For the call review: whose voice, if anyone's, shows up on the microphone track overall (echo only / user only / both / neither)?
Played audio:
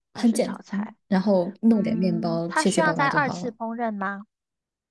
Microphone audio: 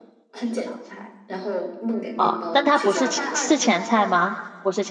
both